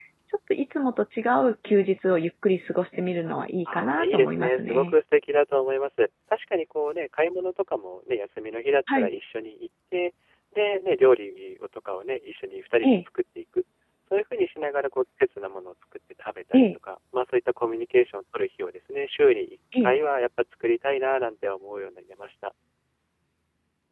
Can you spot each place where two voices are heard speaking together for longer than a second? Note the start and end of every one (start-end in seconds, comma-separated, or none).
3.7-4.9